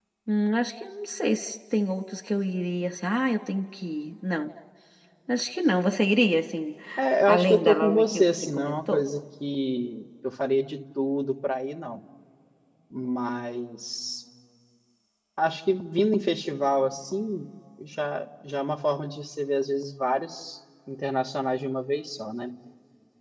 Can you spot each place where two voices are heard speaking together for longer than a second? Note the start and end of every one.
7.3-9.0

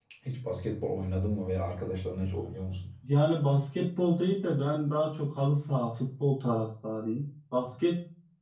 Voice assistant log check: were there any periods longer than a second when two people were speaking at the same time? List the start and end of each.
none

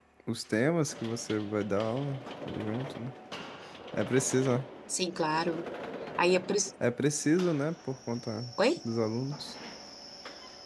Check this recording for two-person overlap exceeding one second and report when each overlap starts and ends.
none

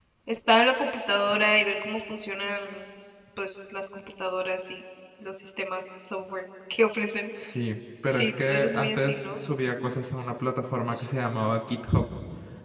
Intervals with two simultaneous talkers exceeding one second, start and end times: 8.1-9.4

